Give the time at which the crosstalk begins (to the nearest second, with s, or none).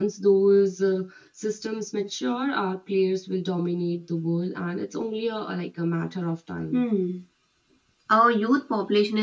none